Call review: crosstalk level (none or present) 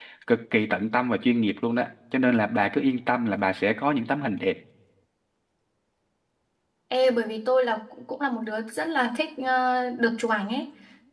none